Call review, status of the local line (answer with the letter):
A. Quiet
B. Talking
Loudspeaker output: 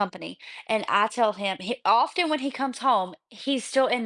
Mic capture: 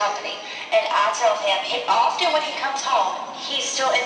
A